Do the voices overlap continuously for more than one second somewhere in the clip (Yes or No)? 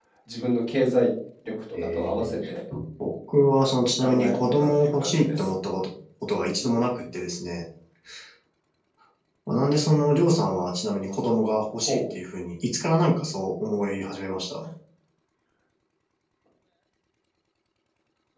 Yes